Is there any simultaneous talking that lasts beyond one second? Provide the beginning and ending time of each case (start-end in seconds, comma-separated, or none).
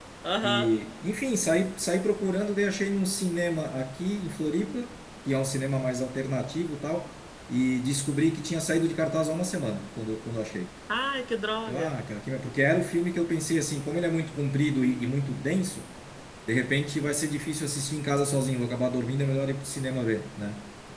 none